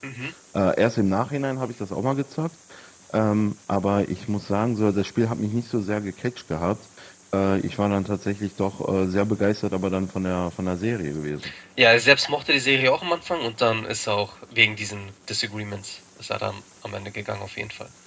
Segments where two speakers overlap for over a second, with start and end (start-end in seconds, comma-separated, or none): none